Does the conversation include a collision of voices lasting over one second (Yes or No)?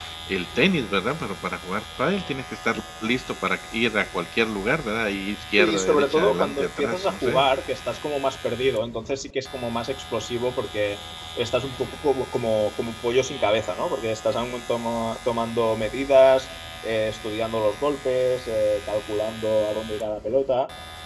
Yes